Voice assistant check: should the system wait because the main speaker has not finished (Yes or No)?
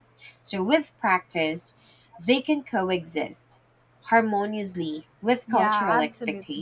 No